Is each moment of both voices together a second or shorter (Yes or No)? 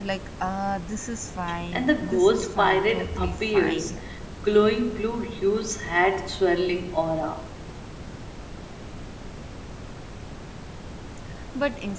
No